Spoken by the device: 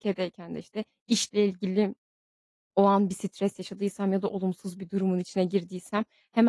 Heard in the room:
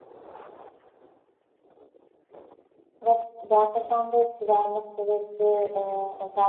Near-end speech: present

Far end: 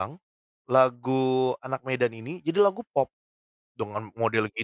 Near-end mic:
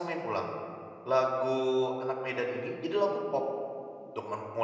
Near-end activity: none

